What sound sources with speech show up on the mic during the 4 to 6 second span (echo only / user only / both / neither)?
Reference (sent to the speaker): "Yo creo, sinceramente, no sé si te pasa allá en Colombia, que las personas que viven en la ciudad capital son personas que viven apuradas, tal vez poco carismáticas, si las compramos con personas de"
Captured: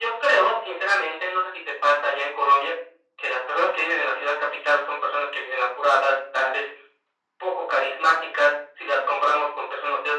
echo only